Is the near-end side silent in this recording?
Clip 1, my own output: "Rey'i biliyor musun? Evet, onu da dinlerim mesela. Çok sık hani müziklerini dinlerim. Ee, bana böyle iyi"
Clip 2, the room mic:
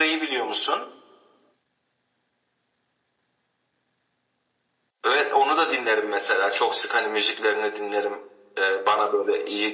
Yes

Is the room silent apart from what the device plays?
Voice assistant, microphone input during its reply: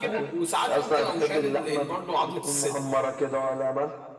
Yes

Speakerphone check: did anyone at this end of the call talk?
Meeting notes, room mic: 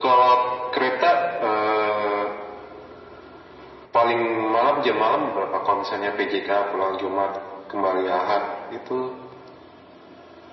No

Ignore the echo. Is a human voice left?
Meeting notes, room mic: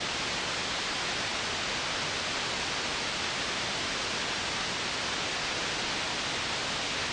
No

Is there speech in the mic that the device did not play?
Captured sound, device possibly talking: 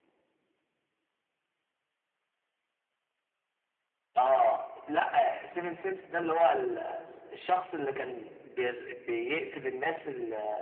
No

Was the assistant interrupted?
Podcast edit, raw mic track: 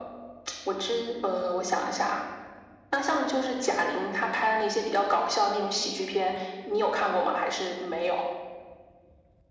No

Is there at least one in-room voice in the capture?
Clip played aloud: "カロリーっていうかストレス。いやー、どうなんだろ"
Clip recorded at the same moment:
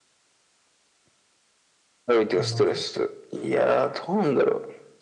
Yes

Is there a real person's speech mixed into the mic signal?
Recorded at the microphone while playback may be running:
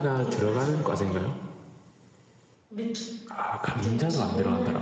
Yes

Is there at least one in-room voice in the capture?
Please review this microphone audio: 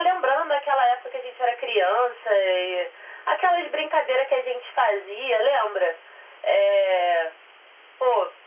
No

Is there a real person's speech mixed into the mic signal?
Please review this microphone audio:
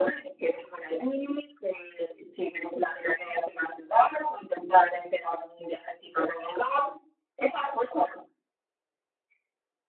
No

